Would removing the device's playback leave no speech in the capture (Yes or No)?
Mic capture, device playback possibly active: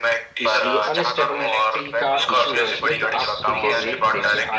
No